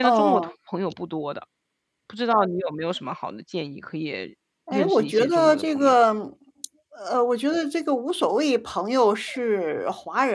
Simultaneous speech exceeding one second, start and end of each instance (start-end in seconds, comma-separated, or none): 4.7-6.0